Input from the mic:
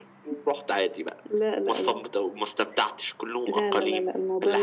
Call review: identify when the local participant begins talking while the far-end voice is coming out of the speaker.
none

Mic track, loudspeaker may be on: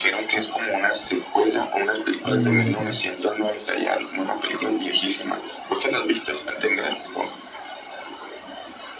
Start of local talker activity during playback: 2.2 s

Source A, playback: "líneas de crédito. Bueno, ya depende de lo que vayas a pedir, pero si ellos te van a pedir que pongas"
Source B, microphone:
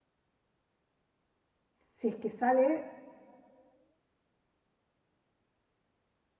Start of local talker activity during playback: 1.9 s

